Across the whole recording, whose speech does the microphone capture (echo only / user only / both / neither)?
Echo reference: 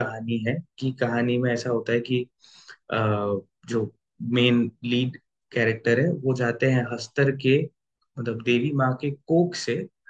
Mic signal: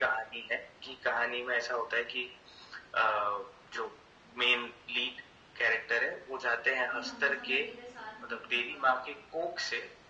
both